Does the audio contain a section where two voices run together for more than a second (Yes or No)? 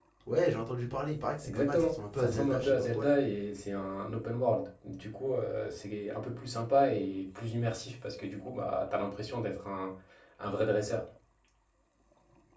Yes